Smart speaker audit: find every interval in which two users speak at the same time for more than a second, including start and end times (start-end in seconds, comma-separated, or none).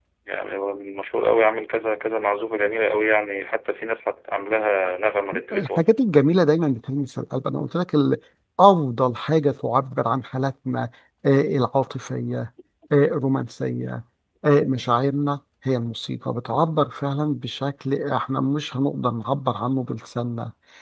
none